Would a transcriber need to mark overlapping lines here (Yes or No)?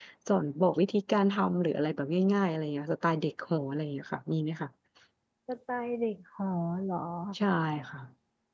No